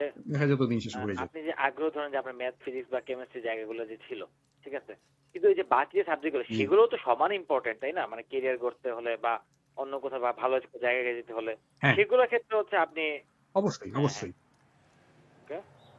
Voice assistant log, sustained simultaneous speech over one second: none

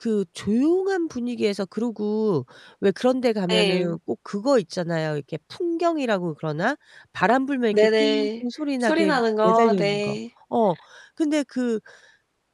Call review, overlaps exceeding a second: present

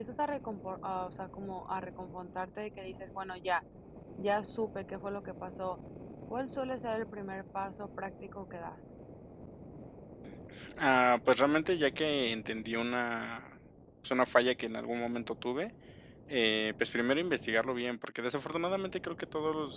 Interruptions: none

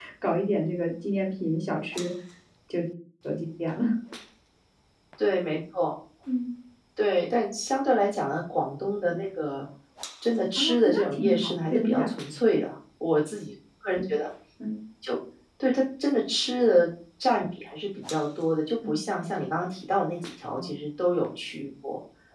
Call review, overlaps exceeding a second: present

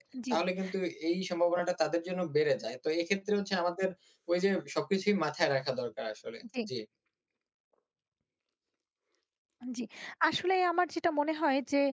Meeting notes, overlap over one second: none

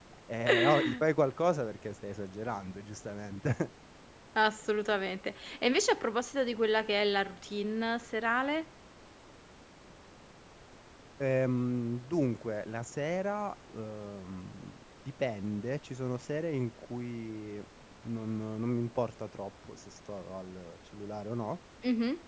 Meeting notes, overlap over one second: none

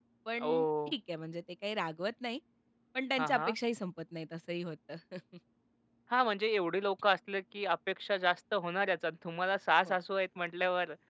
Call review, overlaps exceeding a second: none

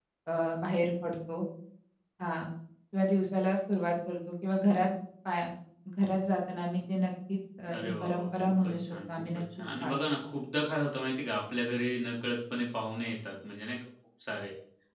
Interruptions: present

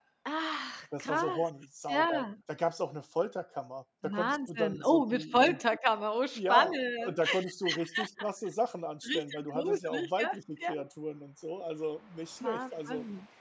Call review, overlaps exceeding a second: present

